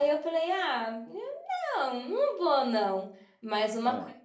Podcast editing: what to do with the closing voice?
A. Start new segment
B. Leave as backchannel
B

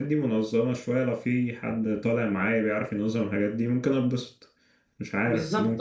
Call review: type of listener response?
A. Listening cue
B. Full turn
B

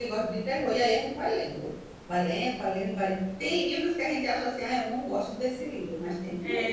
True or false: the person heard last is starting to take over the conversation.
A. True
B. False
A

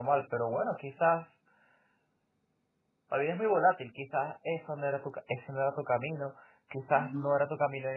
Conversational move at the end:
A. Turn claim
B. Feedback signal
B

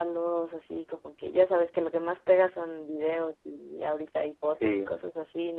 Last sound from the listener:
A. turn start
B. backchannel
B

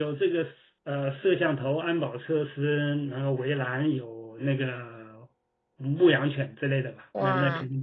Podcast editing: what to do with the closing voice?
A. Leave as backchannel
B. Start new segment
A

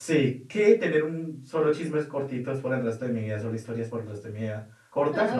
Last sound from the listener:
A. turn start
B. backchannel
B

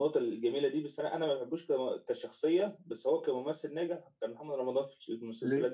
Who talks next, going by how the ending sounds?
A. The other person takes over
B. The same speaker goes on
A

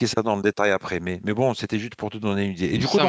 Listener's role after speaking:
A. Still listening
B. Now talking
A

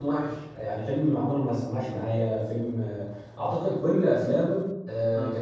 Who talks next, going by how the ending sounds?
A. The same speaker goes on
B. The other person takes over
A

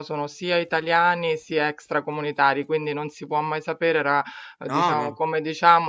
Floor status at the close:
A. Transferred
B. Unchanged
B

